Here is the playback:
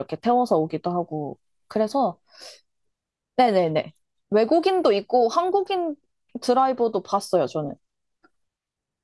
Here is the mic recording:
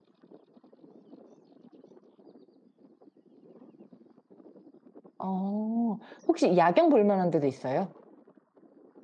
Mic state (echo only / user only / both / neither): user only